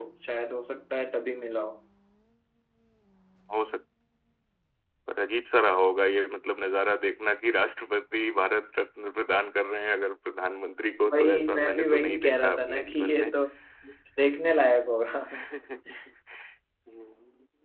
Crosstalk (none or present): present